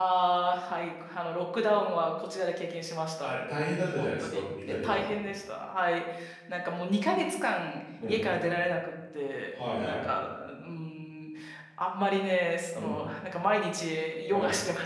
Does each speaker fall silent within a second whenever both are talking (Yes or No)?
No